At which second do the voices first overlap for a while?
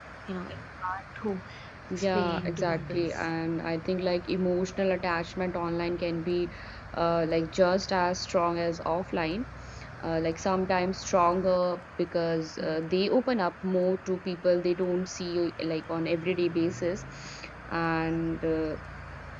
2.0 s

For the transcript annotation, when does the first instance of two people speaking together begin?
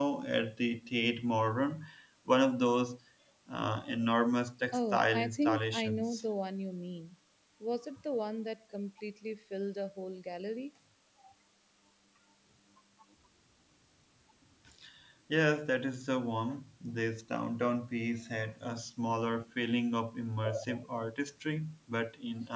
4.7 s

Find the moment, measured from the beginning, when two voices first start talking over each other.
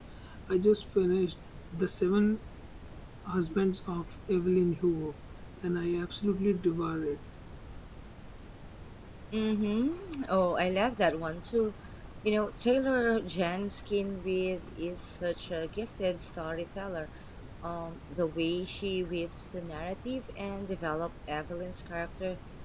none

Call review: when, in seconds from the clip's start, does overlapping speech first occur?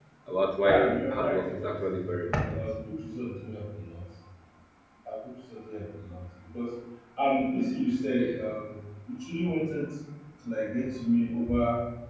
0.6 s

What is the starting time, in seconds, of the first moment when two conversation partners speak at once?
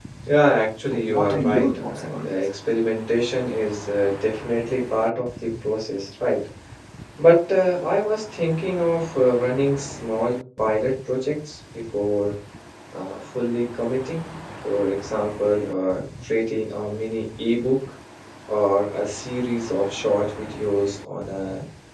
0.9 s

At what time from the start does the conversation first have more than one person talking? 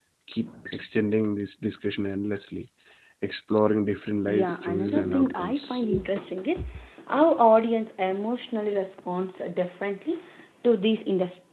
4.3 s

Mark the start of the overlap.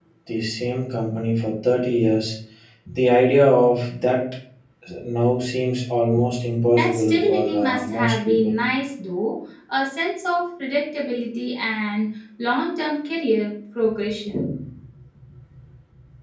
6.7 s

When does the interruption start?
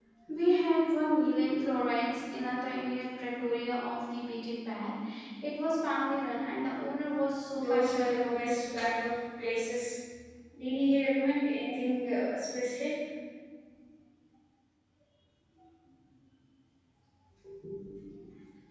7.5 s

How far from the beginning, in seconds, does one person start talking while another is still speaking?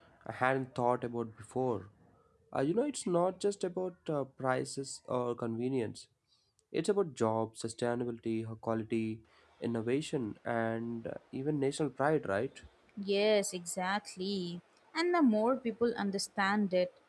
none

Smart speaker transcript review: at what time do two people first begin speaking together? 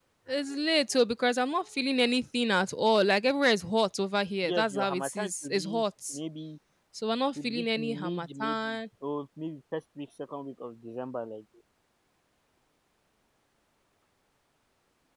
4.5 s

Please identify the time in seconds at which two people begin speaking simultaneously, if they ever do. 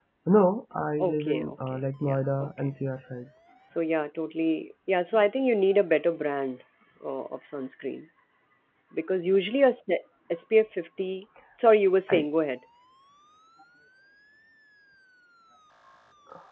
1.0 s

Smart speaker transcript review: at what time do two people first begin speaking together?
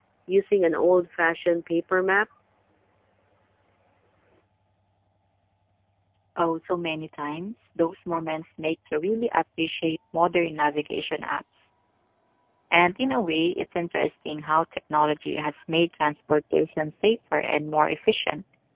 none

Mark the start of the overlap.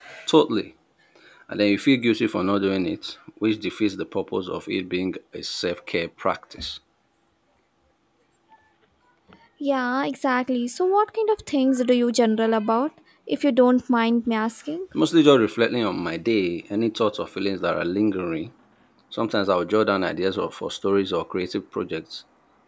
none

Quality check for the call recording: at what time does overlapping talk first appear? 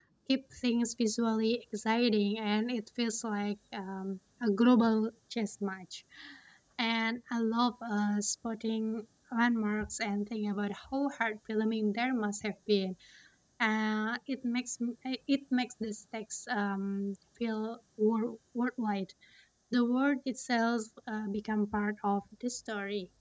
none

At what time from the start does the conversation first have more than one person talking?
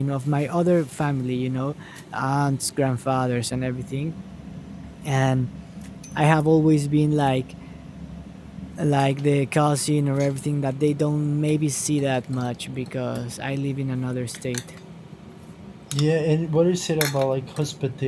none

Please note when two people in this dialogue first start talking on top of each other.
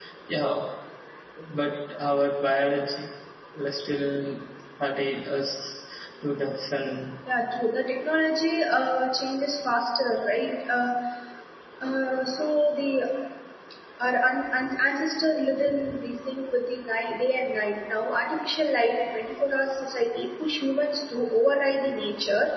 none

